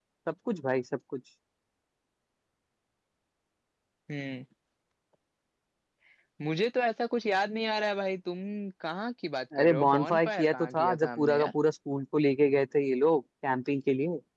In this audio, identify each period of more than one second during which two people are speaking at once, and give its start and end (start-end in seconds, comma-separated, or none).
9.6-11.5